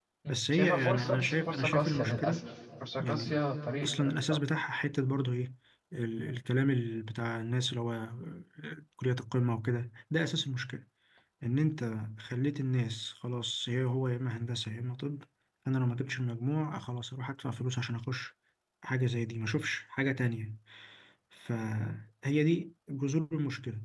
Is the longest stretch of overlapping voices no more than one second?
No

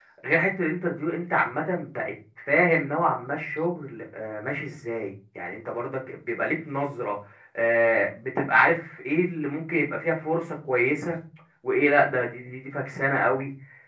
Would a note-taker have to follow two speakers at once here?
No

